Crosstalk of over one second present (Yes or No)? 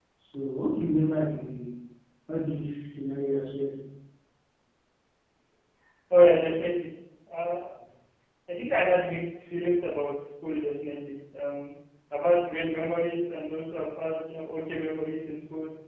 No